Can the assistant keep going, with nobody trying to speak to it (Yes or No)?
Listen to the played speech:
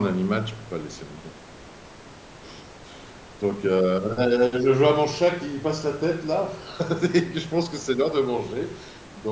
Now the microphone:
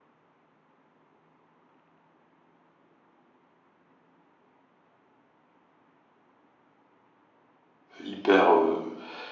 No